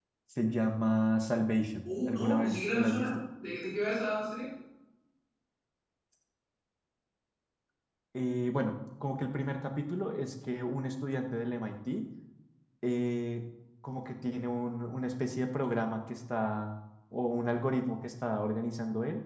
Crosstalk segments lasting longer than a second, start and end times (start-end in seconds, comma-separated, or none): 1.9-3.1